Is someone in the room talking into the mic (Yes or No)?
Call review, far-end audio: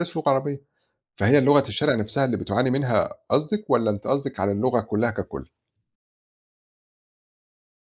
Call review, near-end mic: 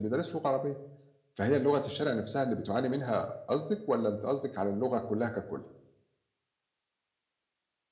No